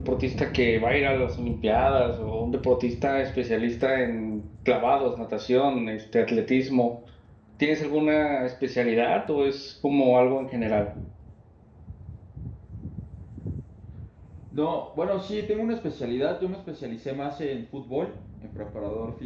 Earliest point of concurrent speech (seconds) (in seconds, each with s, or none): none